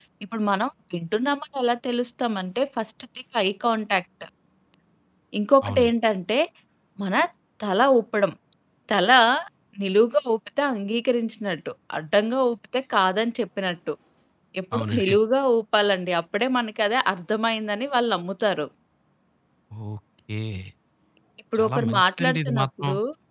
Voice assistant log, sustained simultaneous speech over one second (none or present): present